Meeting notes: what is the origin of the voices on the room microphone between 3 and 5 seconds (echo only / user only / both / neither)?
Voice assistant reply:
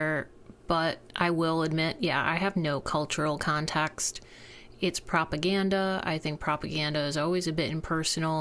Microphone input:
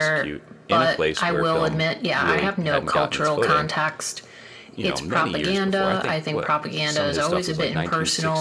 both